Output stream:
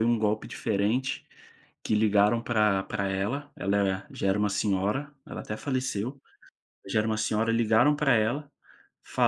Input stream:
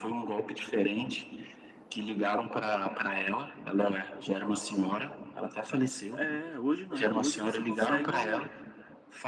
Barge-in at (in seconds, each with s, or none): 6.1 s